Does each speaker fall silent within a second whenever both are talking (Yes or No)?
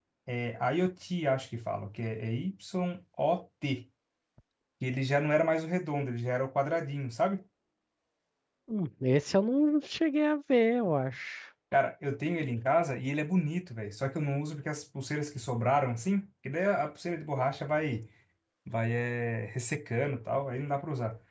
Yes